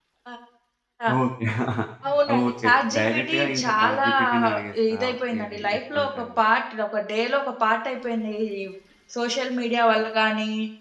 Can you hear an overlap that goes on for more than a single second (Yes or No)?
Yes